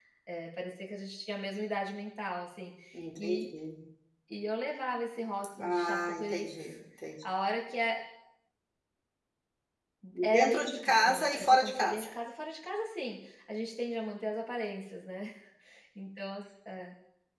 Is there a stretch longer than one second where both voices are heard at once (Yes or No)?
Yes